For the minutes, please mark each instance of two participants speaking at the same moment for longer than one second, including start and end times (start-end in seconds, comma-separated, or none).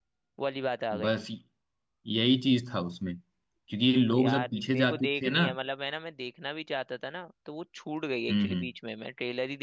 4.2-5.5